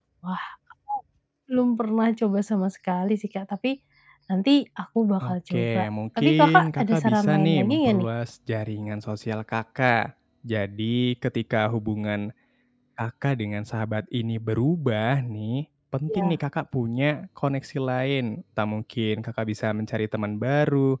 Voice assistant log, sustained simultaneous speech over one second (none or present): present